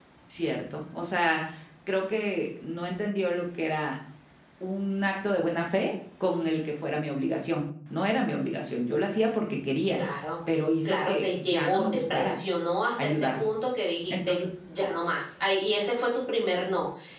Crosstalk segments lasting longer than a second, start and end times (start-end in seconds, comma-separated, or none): 10.8-12.3